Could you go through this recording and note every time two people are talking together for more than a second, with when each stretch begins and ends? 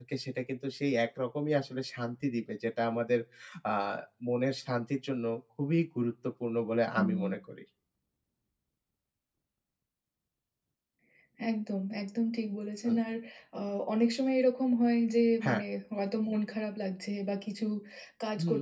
none

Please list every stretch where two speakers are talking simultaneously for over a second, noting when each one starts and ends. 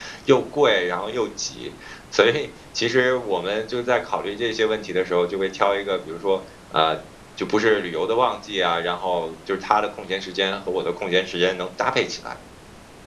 none

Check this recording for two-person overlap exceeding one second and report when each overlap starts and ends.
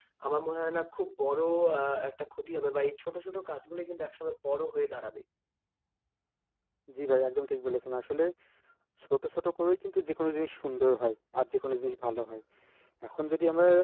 none

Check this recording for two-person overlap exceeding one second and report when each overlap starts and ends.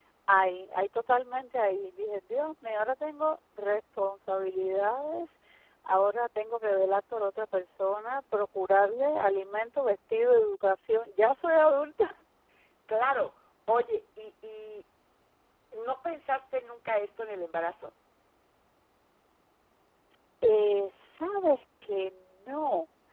none

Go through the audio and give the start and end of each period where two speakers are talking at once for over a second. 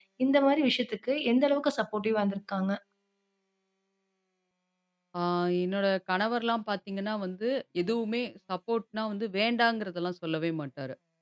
none

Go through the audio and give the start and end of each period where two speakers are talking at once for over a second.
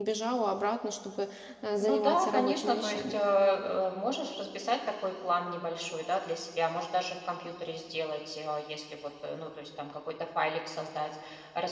1.8-3.2

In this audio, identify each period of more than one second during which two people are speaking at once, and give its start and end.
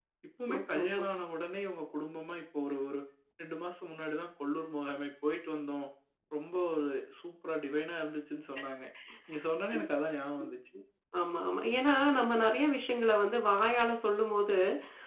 none

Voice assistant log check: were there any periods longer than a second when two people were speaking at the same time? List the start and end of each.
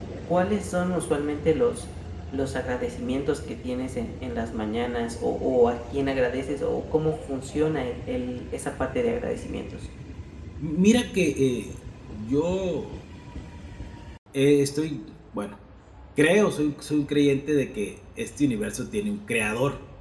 none

